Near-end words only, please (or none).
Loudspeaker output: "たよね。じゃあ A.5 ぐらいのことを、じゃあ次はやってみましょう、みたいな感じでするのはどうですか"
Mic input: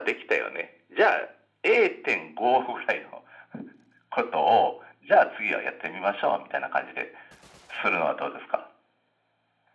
none